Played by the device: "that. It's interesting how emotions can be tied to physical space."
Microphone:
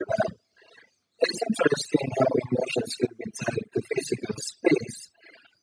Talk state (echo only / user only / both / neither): echo only